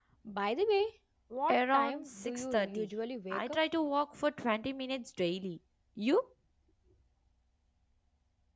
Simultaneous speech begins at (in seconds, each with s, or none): 1.5 s